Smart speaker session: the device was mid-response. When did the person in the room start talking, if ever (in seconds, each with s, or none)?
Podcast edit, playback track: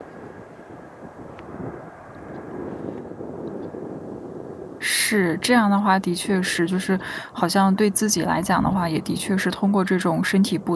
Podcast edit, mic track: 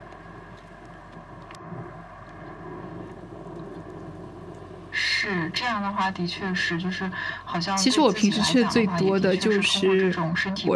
7.7 s